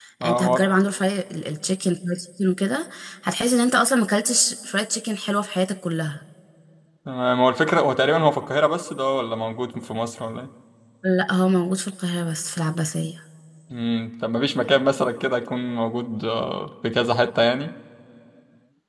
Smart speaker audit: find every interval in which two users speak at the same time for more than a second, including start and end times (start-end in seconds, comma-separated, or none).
none